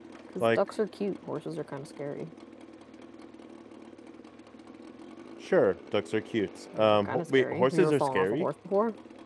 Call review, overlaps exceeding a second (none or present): present